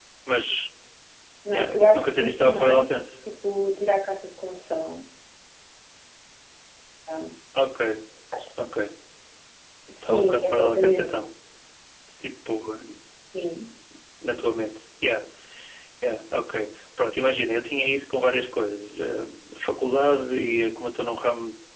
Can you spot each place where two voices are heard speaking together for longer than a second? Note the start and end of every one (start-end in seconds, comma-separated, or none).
1.5-3.0, 10.0-11.2